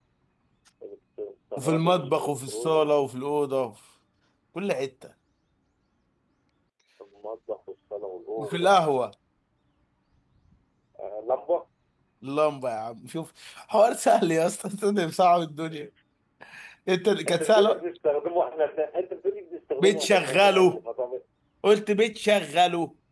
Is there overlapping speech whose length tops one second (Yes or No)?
Yes